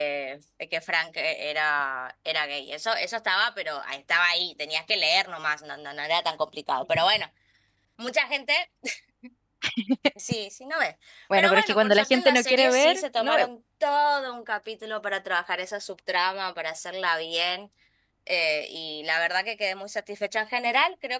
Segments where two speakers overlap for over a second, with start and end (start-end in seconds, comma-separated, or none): 11.4-13.5